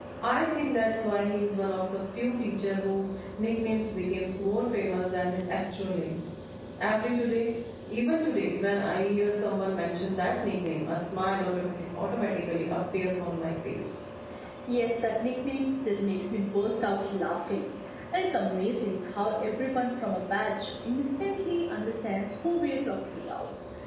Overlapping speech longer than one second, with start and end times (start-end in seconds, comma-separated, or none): none